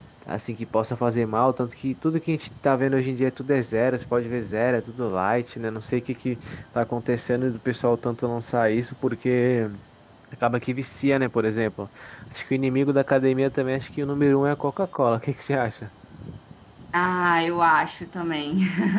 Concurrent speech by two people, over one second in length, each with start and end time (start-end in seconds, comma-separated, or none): none